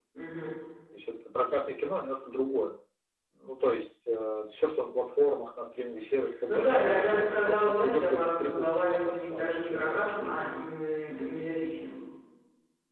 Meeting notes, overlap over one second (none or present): present